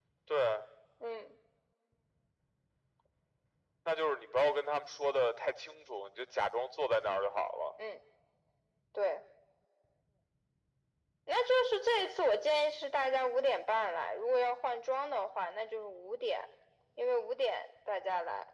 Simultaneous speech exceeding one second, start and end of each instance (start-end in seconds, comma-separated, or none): none